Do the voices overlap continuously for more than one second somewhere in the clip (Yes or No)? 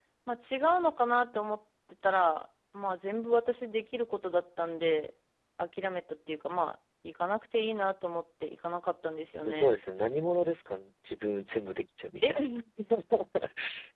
No